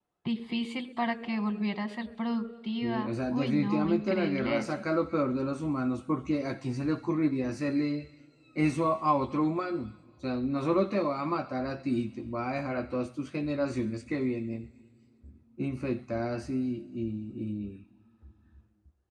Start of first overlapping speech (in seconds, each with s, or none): 2.8 s